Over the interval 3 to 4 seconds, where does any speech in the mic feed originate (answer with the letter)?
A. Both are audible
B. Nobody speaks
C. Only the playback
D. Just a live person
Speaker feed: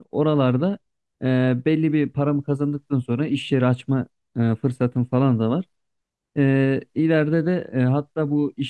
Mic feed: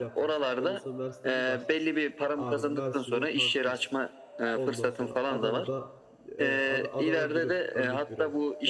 A